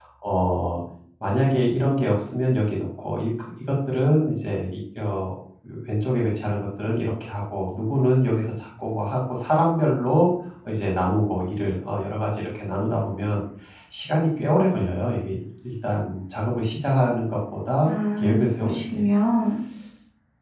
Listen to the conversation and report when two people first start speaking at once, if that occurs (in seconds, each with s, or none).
17.8 s